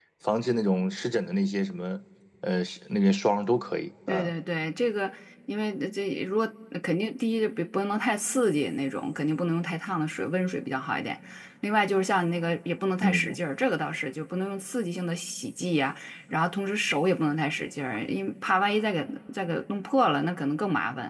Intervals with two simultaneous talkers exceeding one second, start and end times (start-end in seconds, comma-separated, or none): none